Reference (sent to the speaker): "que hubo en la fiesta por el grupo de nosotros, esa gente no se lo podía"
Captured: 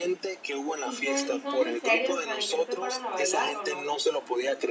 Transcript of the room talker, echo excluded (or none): ¿y son y son muy serios, o sea, de que se paran a bailar o no?